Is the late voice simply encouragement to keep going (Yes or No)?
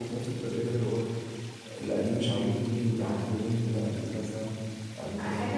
No